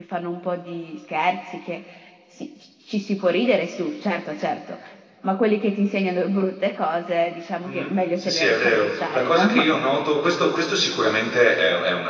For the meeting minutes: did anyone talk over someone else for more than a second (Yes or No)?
Yes